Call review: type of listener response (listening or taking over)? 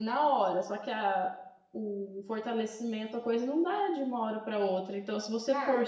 listening